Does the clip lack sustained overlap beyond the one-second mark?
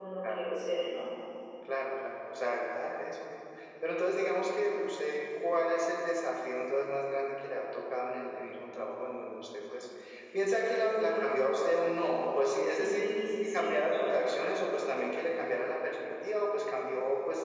Yes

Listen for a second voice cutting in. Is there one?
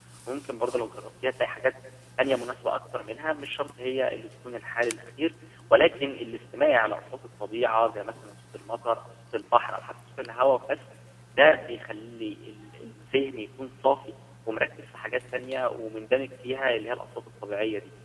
No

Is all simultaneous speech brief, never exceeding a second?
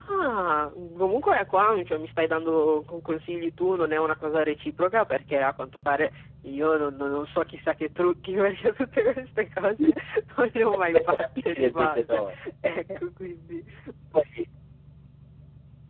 No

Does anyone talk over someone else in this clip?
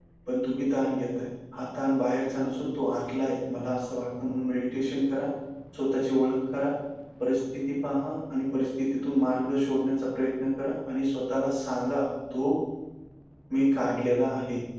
No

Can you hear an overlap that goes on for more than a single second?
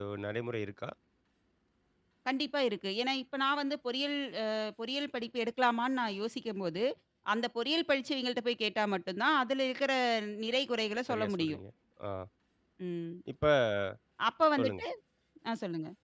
No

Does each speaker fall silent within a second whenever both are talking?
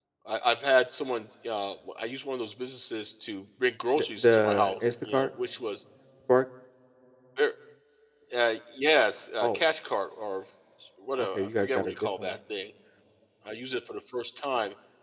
No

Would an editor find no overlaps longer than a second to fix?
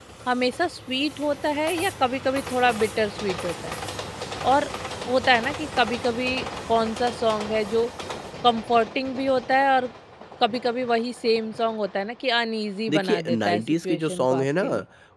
No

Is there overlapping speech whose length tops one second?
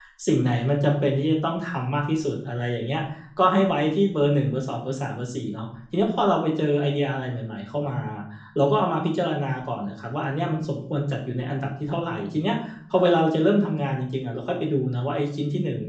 No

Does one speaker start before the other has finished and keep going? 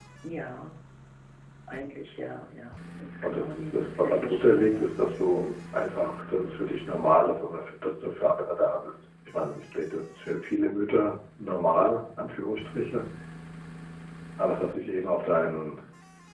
Yes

